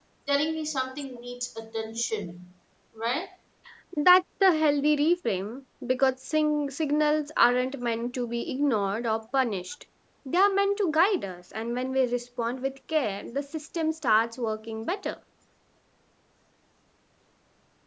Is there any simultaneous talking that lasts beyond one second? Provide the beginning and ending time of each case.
none

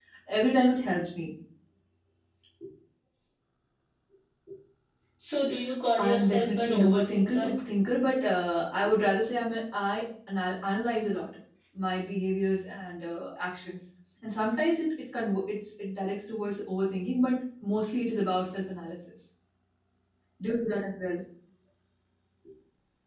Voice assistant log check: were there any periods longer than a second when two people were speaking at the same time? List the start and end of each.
6.0-7.5

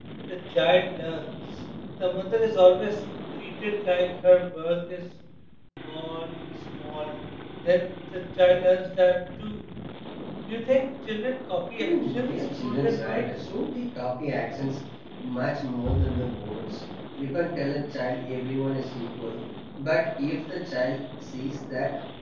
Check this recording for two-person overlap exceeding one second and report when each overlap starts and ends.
11.8-13.2

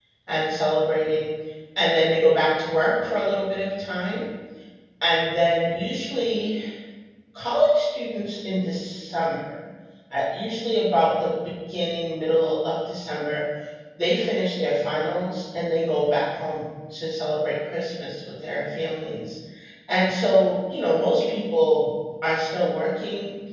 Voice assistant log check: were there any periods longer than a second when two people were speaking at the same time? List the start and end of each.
none

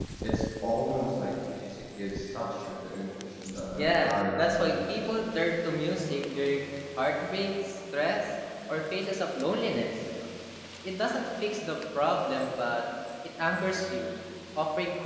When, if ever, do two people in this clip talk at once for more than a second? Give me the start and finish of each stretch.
3.8-5.0

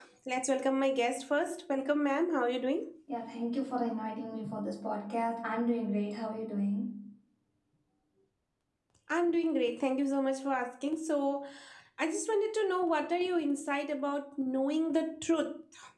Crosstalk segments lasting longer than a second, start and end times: none

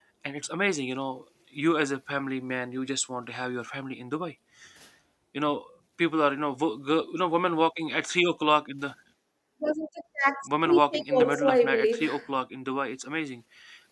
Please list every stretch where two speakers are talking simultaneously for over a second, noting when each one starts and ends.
10.5-12.1

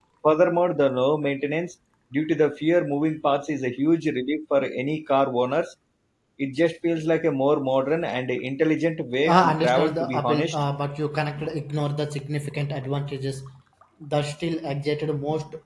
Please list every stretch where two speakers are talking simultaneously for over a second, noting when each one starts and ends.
9.3-10.6

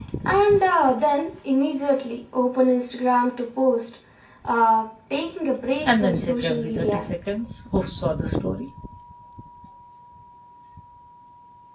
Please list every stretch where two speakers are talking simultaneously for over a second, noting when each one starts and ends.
5.8-7.0

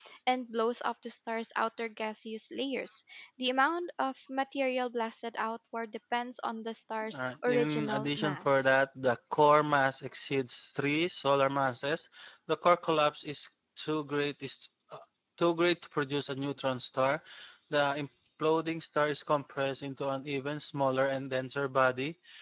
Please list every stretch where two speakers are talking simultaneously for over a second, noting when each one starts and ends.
7.1-8.7

